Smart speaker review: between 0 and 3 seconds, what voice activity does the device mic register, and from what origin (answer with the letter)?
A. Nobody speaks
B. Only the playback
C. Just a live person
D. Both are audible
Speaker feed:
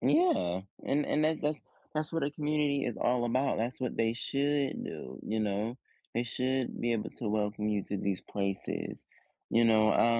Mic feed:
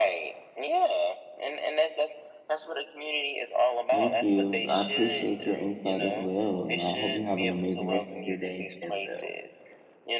B